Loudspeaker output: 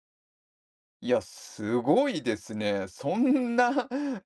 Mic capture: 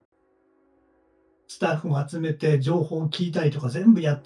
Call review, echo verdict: none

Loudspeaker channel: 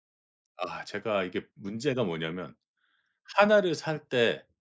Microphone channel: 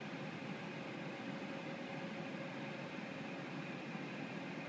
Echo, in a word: none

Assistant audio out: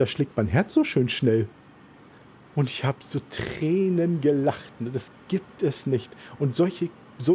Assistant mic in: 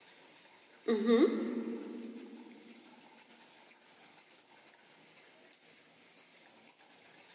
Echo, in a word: none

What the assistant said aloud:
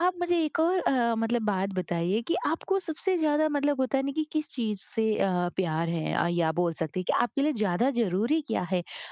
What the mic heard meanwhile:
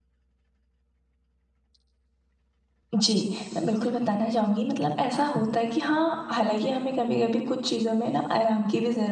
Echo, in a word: none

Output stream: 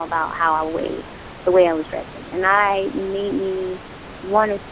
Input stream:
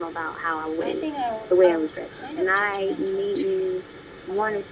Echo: present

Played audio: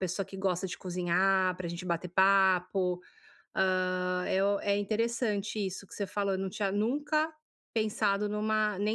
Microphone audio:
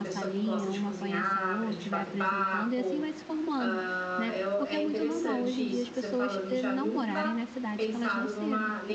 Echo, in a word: present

